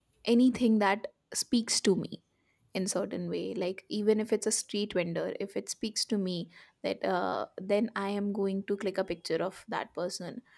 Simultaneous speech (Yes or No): No